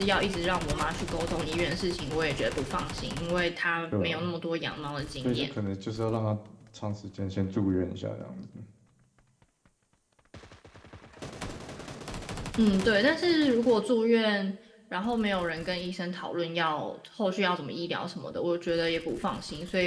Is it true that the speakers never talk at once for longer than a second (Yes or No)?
Yes